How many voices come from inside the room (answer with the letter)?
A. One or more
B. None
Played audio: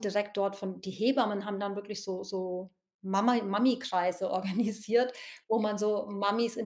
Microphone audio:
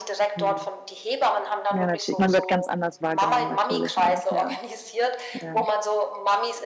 A